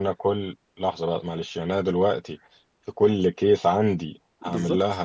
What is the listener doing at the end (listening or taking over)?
taking over